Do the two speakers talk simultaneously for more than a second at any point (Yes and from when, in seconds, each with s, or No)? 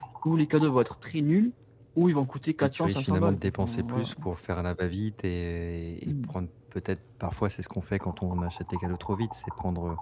Yes, from 2.6 s